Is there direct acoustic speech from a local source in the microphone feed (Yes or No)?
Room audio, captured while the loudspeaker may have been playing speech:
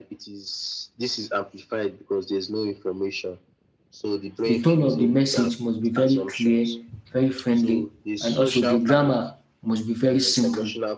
Yes